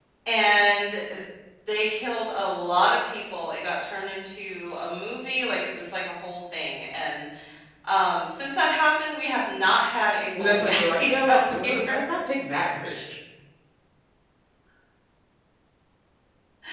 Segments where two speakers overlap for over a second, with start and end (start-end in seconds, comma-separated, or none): 10.4-11.7